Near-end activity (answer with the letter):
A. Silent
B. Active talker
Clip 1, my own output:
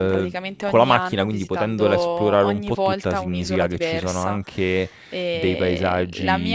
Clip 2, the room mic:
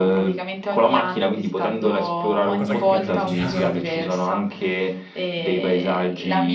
B